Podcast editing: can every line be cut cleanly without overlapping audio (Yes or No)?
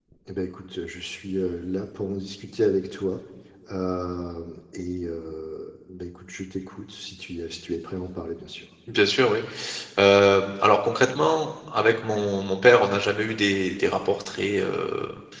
Yes